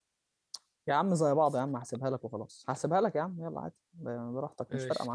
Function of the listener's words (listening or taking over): taking over